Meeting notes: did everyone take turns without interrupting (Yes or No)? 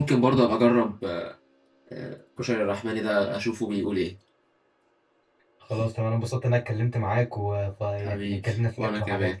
No